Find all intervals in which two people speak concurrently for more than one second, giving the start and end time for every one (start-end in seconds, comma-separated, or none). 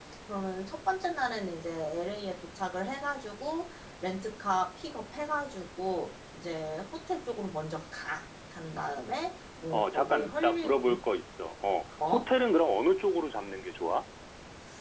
9.7-11.0